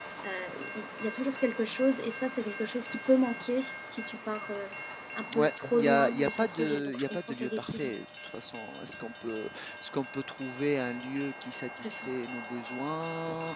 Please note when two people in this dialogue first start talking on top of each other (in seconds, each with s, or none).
5.3 s